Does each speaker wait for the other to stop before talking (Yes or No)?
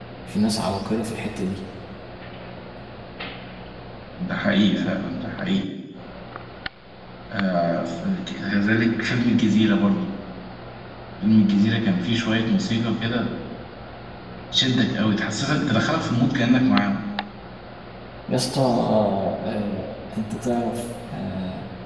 Yes